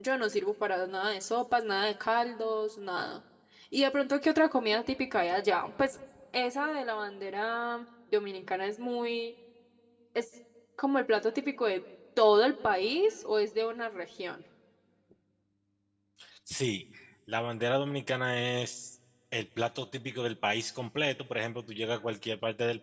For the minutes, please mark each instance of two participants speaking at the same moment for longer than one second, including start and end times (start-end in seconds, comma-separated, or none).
none